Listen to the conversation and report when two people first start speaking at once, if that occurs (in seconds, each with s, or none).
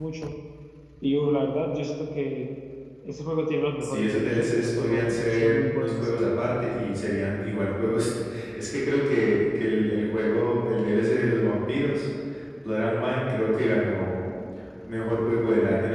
3.8 s